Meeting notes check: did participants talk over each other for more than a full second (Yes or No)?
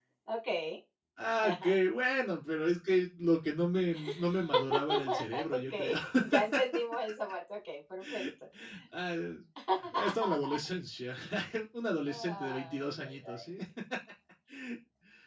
Yes